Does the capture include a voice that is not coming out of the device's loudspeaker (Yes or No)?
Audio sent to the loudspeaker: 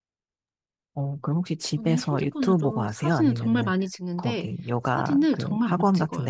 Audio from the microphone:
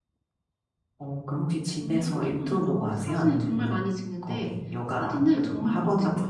No